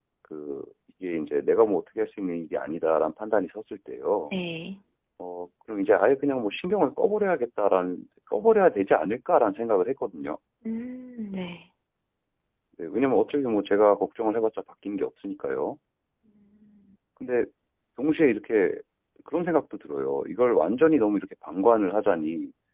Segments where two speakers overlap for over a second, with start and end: none

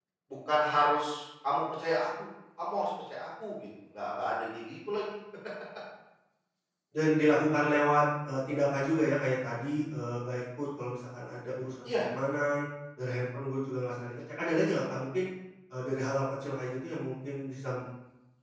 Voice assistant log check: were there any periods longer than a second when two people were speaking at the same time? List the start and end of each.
none

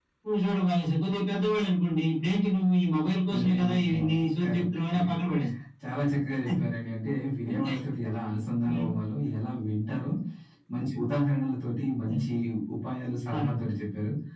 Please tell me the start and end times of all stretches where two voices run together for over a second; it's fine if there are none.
3.3-5.2

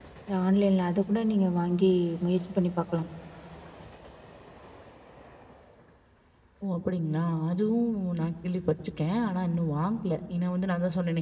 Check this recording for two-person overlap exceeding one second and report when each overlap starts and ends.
none

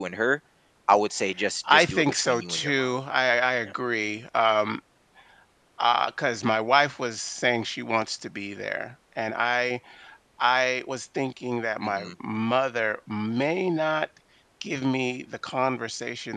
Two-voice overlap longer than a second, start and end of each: 1.7-2.9

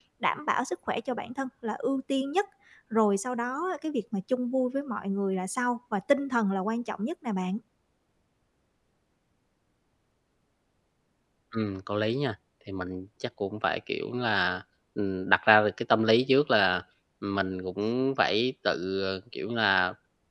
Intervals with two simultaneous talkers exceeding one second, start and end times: none

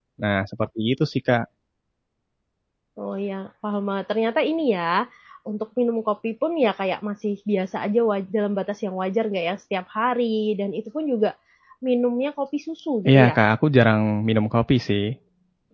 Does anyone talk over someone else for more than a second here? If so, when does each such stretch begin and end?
none

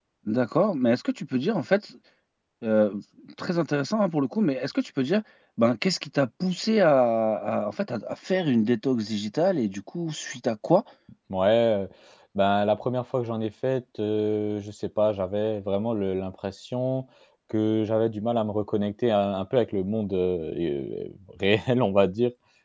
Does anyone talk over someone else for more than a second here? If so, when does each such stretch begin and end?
none

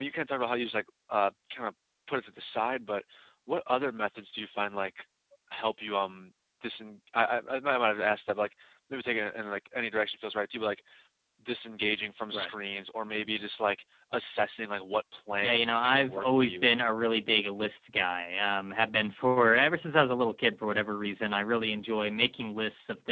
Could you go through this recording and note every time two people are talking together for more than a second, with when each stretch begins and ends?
15.4-16.7

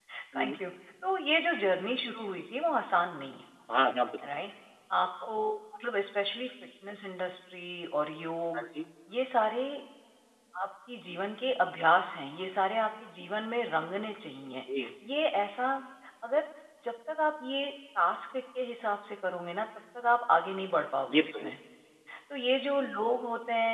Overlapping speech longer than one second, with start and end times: none

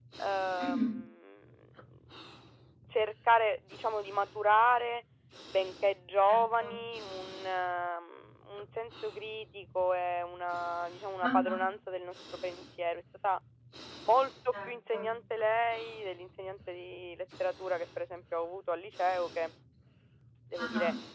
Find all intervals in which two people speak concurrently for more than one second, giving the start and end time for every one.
none

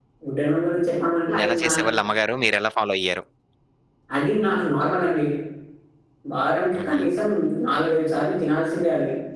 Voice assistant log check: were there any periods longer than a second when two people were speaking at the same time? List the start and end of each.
none

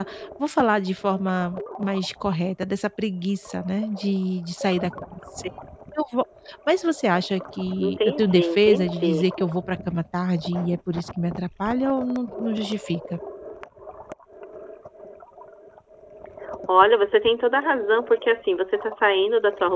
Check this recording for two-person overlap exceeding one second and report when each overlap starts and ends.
7.8-9.3

